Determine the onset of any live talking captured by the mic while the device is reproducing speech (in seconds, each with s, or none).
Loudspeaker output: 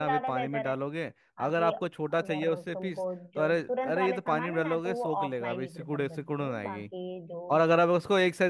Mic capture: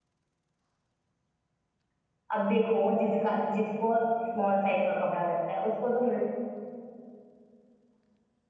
2.3 s